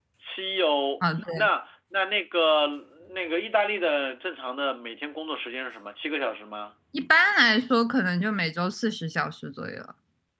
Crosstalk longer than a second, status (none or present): none